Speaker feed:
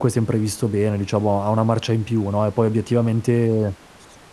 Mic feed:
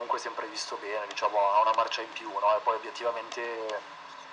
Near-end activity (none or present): none